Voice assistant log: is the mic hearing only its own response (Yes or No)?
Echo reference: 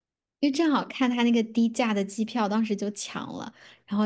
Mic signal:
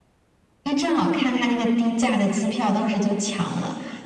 Yes